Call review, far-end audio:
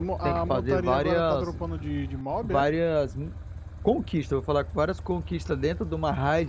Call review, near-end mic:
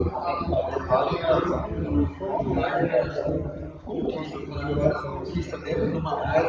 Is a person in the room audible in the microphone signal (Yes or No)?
Yes